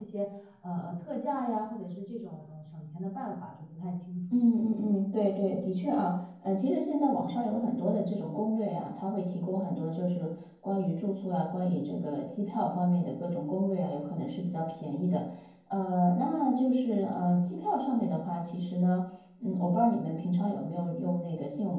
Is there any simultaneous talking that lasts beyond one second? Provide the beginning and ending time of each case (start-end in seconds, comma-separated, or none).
none